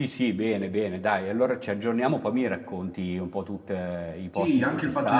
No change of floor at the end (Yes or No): No